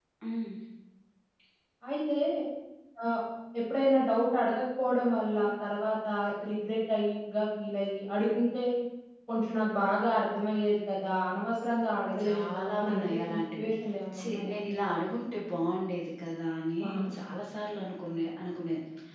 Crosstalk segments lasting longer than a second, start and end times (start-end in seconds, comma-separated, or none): 12.2-13.7